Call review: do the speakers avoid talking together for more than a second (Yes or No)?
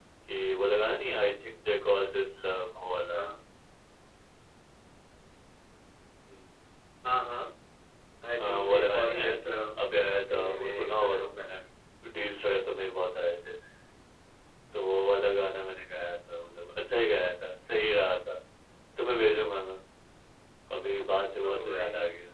No